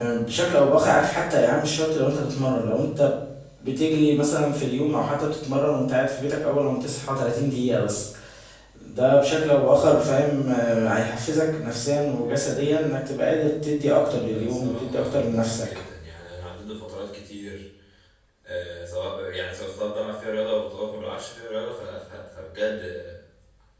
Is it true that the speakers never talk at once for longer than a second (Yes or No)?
No